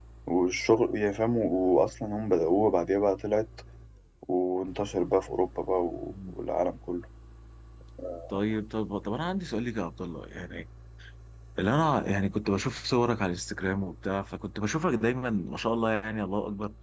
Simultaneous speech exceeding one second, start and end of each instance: none

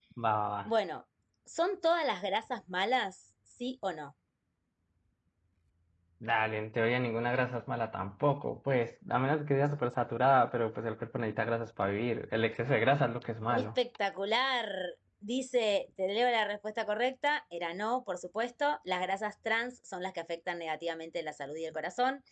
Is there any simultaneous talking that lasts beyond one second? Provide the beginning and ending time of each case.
none

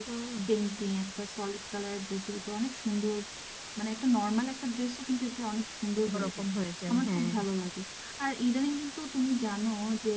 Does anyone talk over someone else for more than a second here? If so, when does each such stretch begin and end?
none

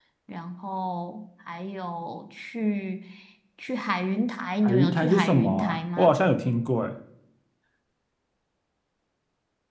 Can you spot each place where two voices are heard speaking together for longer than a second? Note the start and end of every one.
4.6-6.1

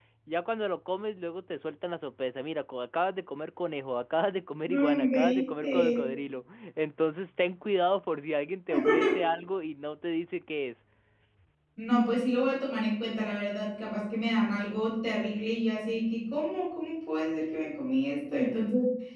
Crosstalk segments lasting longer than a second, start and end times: 4.7-6.0

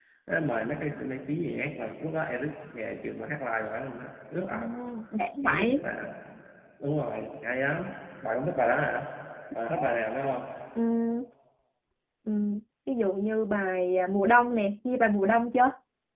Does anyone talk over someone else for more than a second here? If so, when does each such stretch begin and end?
none

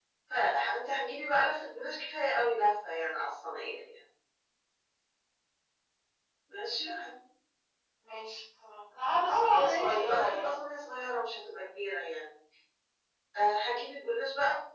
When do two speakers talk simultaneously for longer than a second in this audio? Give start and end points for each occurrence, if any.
9.3-10.6

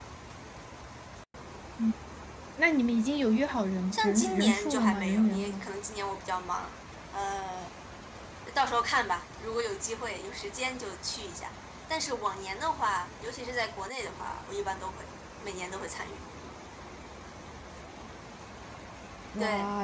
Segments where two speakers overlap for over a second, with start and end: 3.9-5.7

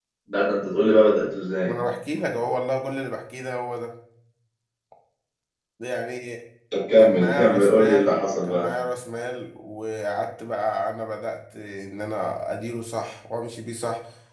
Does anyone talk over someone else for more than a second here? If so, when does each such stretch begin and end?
7.0-8.7

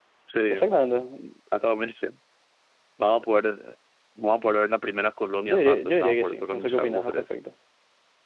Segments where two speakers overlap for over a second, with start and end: 5.5-7.3

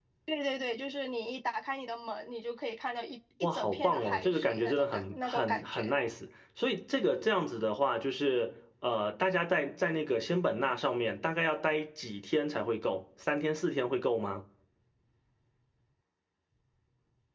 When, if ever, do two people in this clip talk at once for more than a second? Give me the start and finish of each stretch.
3.5-5.9

